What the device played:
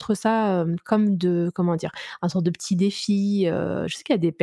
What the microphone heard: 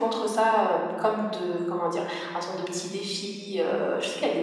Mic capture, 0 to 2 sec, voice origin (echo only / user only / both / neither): echo only